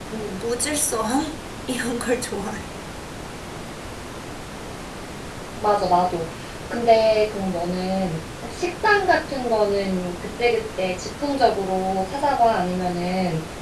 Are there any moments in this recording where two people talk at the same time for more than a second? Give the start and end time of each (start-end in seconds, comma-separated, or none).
none